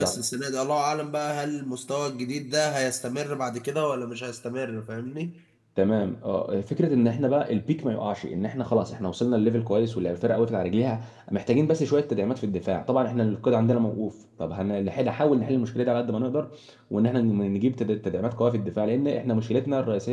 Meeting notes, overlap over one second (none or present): none